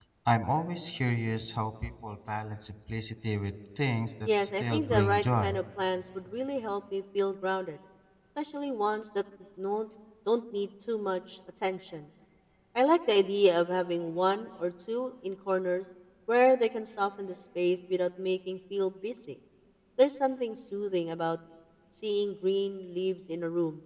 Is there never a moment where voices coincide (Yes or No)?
No